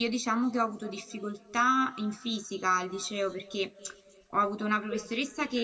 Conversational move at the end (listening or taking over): listening